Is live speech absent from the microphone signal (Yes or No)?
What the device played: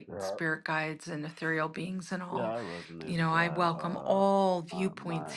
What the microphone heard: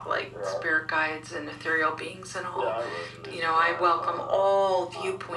Yes